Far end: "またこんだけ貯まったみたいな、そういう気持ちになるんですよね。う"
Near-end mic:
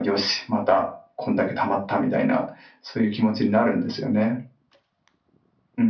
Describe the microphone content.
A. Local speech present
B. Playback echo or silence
B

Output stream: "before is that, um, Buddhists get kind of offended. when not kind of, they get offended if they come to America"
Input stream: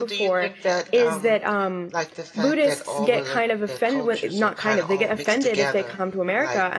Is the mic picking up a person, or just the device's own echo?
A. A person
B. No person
A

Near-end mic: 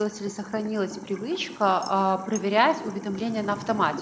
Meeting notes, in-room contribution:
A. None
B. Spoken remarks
B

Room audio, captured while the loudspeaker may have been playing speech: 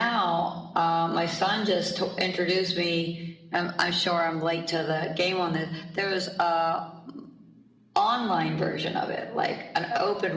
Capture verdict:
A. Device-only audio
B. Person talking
A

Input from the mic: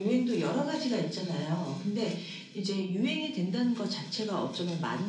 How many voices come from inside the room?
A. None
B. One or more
A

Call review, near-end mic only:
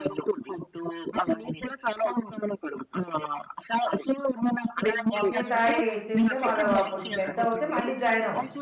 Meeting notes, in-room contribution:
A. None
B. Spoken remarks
B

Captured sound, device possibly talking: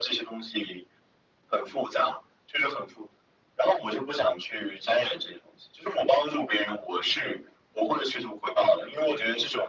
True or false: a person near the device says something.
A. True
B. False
B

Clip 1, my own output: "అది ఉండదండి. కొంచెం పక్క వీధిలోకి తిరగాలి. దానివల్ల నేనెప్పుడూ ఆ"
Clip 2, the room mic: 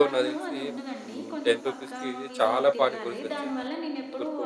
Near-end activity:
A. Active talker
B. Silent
A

